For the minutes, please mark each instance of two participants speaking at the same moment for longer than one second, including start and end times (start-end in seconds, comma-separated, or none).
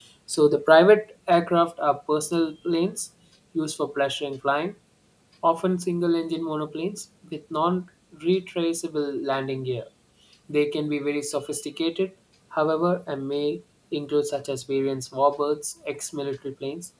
none